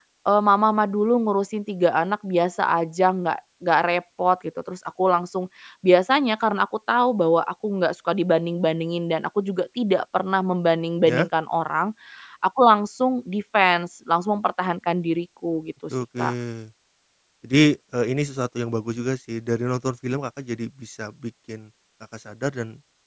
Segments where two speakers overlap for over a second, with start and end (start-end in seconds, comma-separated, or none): none